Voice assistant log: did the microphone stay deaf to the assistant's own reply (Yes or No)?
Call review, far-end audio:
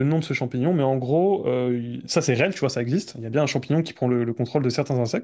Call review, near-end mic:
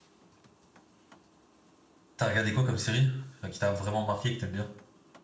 Yes